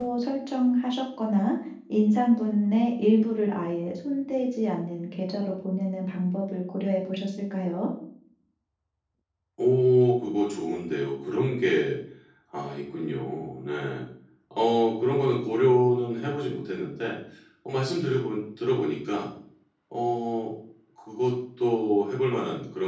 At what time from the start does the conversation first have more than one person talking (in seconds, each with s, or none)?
none